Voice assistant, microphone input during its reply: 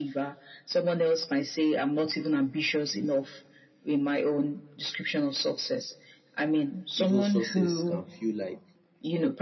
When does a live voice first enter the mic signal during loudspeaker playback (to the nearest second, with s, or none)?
7 s